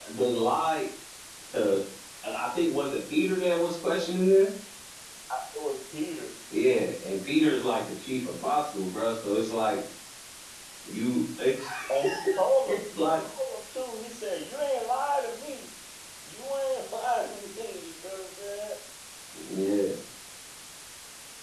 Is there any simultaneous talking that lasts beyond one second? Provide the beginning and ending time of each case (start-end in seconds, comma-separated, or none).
none